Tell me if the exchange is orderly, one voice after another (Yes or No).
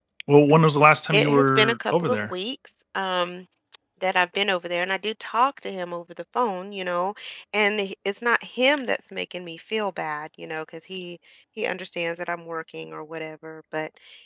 No